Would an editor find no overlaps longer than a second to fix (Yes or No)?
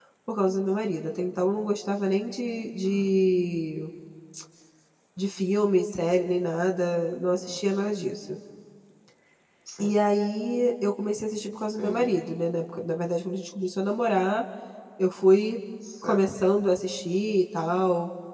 Yes